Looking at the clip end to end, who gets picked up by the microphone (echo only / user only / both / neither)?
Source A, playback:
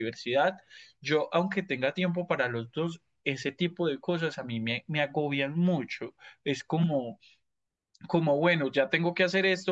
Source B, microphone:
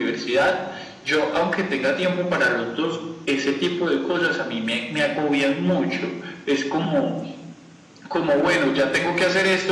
echo only